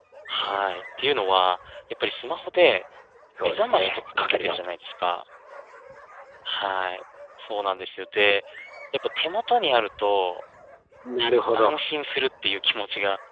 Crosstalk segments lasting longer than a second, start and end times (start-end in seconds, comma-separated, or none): 3.4-4.6